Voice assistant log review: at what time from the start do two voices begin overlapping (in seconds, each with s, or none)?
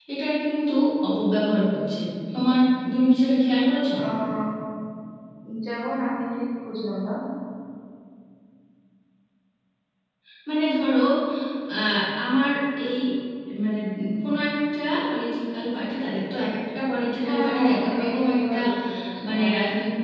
17.1 s